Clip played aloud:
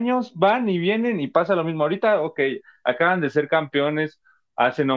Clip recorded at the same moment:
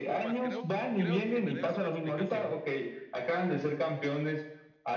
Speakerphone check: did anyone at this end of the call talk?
Yes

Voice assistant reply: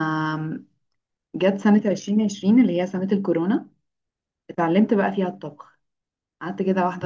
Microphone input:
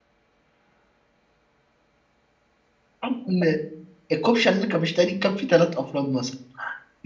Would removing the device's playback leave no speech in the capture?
No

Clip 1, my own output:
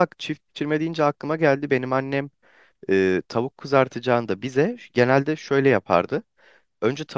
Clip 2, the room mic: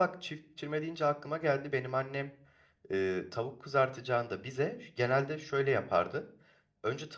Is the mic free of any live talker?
Yes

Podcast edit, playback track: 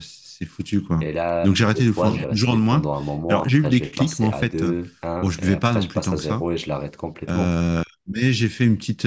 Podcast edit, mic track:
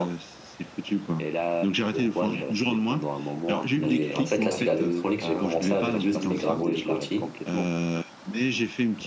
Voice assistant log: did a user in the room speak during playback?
Yes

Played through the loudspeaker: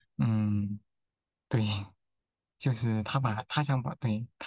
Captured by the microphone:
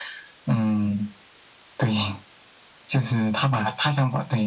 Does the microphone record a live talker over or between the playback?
No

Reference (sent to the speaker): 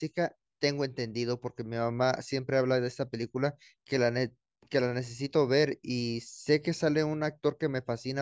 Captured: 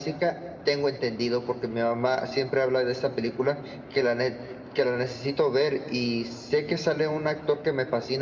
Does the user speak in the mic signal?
No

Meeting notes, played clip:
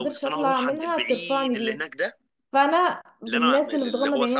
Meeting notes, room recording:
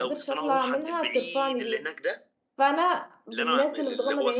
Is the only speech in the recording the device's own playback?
Yes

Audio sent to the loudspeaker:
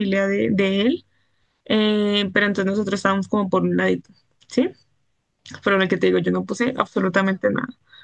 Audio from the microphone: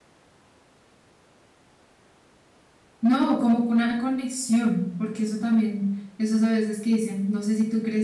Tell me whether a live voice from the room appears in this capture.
Yes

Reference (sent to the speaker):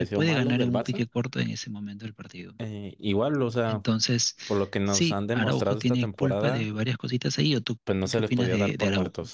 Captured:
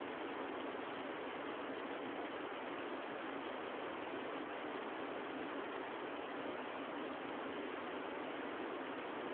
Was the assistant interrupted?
No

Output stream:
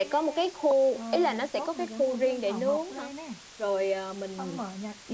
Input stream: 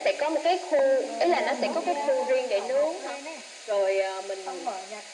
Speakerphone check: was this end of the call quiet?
No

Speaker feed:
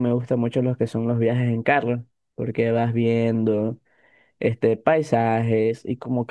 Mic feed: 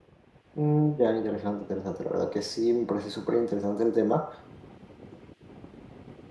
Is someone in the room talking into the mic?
Yes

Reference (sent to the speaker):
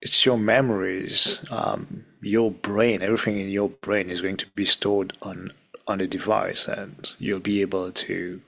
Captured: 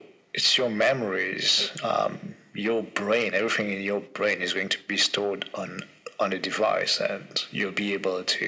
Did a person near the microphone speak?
No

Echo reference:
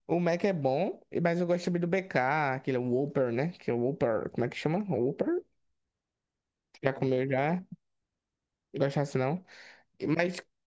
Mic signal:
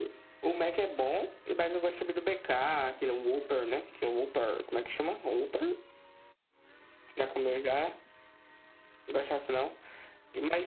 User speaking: No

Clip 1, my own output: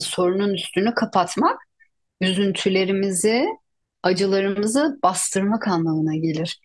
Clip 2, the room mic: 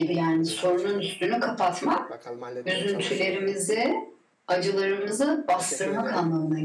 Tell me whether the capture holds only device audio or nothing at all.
No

